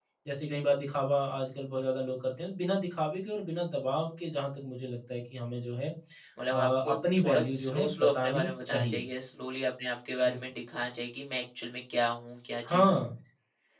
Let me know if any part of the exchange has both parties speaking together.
Yes, from 6.5 s

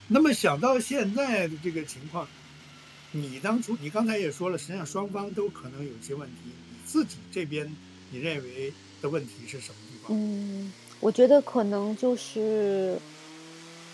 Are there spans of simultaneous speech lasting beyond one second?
No

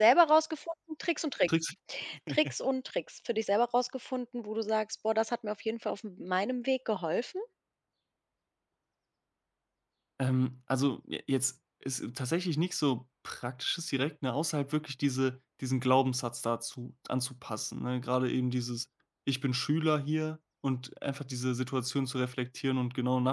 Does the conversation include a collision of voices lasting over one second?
No

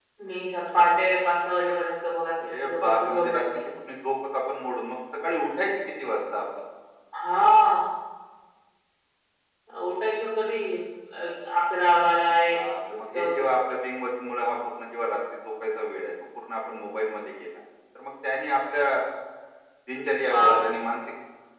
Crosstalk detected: Yes, from 2.4 s

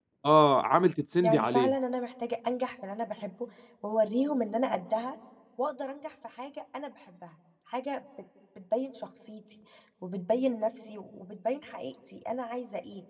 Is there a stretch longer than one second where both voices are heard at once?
No

